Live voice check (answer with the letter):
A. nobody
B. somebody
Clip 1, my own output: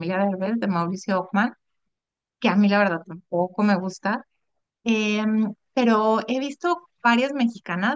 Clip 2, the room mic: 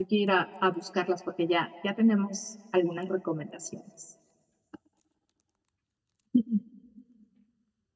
B